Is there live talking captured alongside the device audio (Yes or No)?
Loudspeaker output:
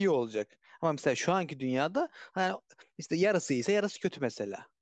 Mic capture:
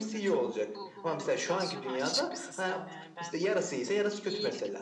Yes